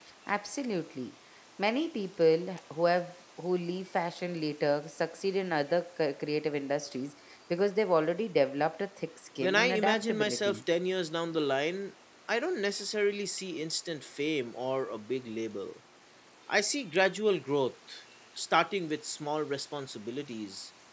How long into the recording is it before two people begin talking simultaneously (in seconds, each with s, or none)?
9.4 s